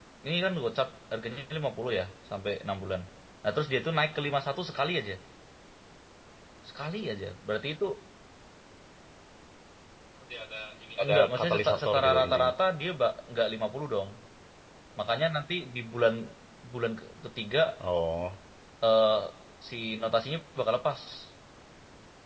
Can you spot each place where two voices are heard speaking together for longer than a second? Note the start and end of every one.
11.0-12.5

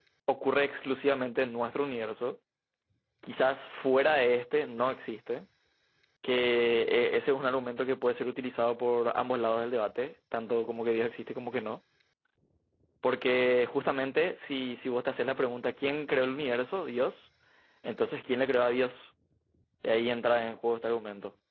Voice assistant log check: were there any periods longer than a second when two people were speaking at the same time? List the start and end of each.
none

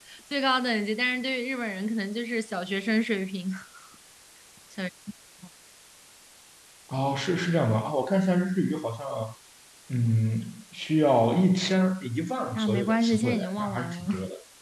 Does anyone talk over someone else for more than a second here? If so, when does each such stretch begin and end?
12.6-14.1

